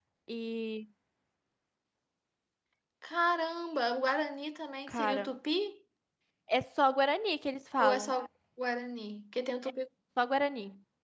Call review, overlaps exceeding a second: none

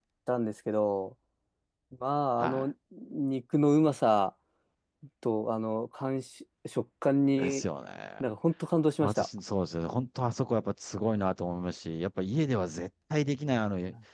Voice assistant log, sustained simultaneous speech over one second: none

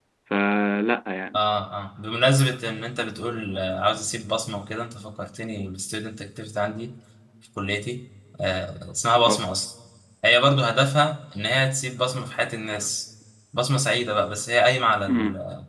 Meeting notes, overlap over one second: none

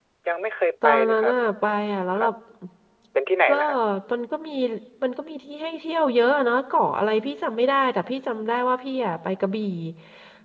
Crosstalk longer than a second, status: none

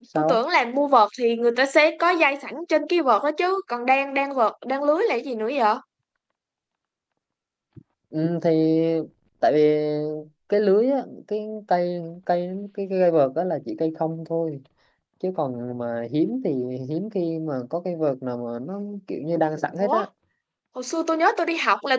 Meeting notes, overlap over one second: none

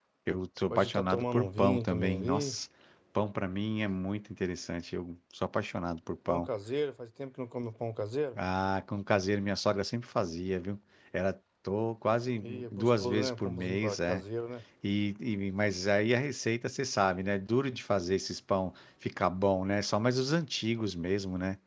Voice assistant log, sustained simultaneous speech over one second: present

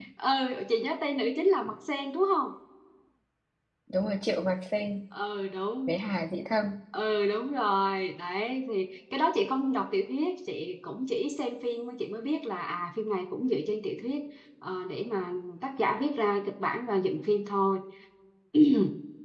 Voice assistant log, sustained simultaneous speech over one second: none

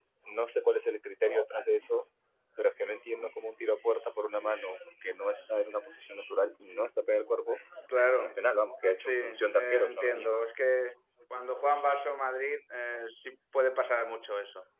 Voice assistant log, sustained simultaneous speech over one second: present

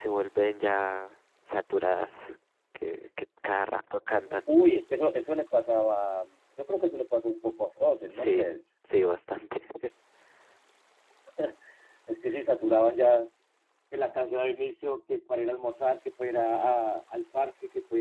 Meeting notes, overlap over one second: none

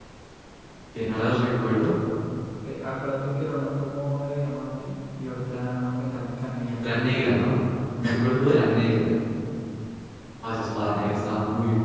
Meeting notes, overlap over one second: none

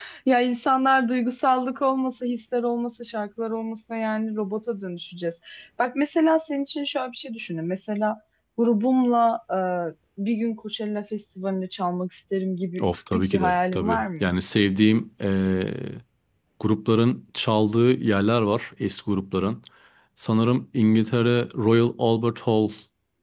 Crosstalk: present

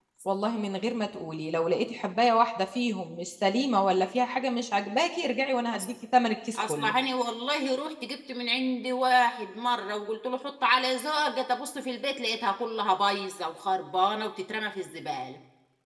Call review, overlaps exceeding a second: none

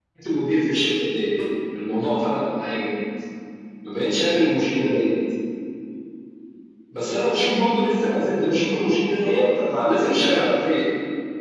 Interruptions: present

